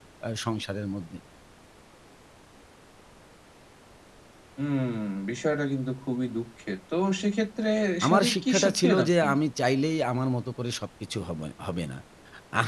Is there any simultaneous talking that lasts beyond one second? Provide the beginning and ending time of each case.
8.1-9.3

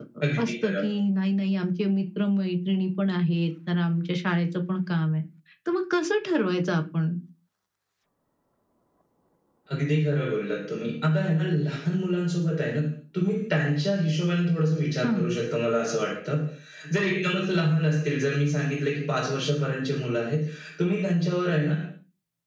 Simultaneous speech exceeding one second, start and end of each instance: none

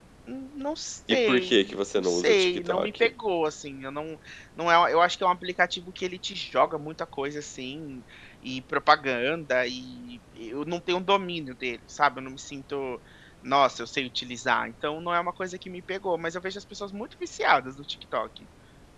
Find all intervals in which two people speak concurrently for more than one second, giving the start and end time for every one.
1.1-3.1

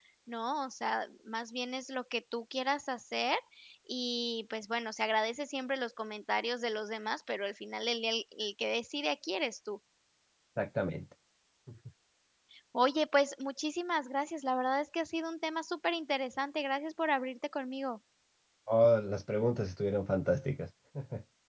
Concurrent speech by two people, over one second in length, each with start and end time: none

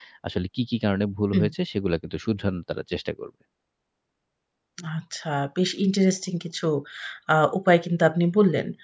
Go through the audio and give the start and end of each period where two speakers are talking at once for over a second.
none

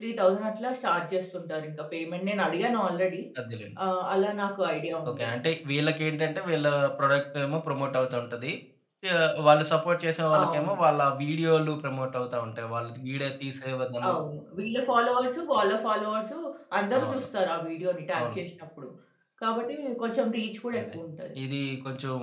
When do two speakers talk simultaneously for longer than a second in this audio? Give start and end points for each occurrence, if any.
none

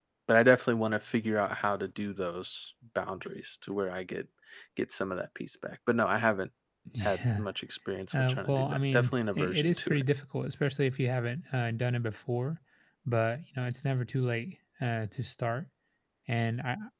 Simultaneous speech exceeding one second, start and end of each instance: 8.1-10.0

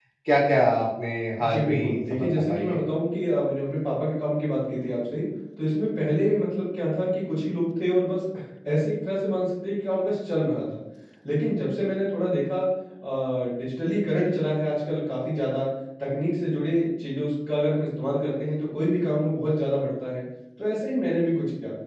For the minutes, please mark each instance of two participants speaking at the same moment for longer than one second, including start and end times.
1.4-2.8

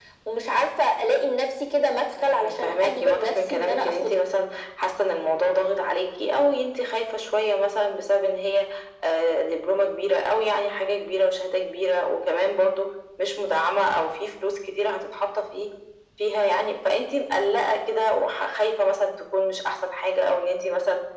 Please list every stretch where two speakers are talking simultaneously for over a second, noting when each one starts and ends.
2.2-4.1

